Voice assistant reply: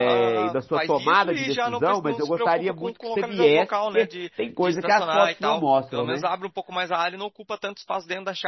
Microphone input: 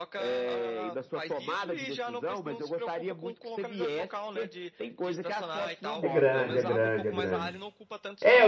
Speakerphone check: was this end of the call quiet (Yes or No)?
No